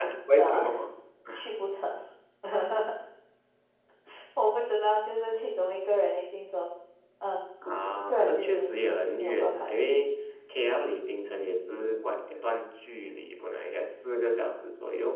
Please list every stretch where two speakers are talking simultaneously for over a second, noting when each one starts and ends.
8.1-10.0

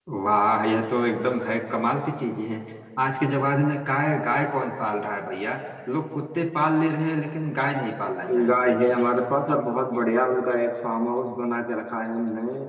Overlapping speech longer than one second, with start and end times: none

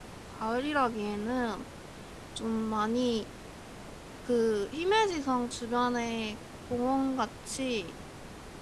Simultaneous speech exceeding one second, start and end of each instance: none

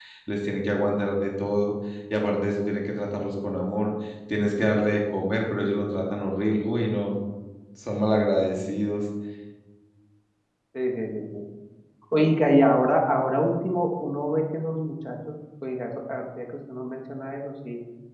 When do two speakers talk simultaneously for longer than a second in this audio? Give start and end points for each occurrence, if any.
none

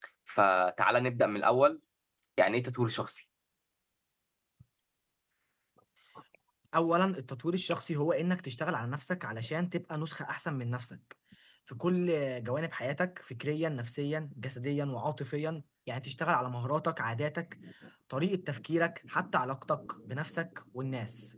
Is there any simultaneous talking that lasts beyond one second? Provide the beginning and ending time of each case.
none

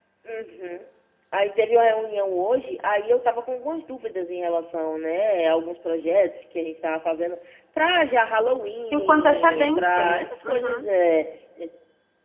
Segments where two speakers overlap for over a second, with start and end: 8.9-10.9

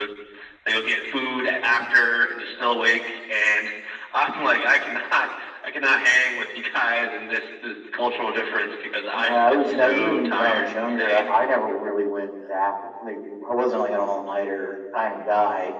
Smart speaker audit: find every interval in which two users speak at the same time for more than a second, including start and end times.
9.1-11.3

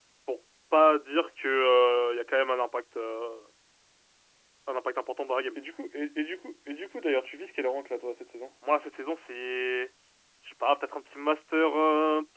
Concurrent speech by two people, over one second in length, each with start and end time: none

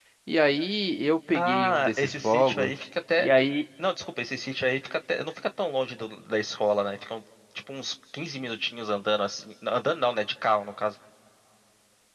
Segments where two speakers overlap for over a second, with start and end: 1.3-2.7

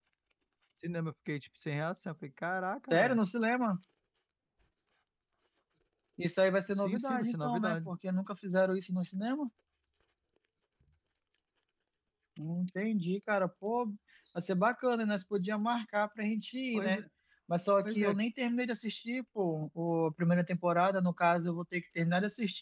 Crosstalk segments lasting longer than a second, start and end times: 6.7-7.9

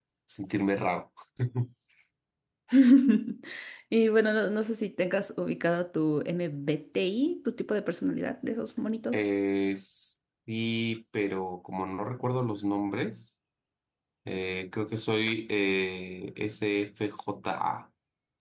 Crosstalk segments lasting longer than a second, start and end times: none

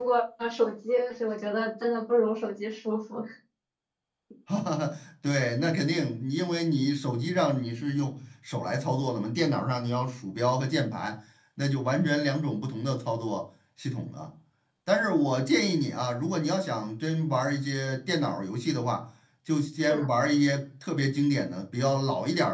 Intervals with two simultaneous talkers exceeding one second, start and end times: none

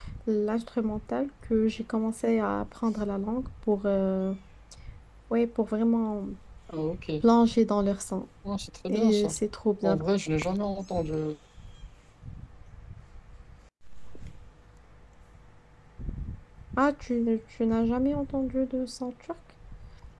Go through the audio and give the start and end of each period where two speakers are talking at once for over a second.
none

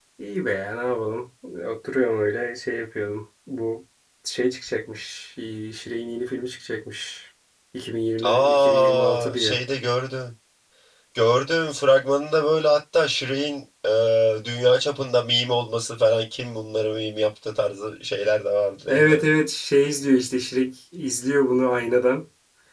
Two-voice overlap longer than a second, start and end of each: 8.2-9.6

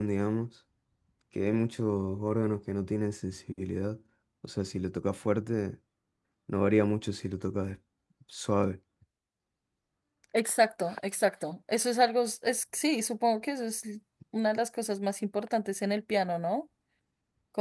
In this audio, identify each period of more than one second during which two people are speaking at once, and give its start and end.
none

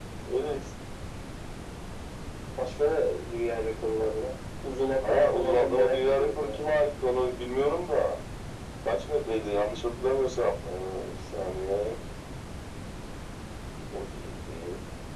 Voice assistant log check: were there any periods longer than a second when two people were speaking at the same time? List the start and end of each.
5.0-6.6

